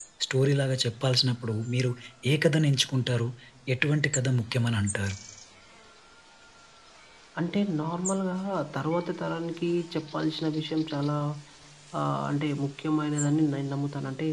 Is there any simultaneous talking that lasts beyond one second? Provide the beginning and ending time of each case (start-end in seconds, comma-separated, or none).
none